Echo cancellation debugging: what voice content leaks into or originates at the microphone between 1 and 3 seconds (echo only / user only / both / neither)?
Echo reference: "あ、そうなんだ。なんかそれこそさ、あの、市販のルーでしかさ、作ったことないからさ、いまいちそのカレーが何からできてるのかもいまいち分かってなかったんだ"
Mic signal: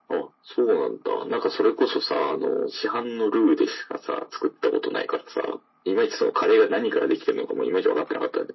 echo only